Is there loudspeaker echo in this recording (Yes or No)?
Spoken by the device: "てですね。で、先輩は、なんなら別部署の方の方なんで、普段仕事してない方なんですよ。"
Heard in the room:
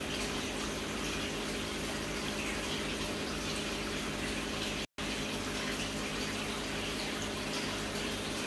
No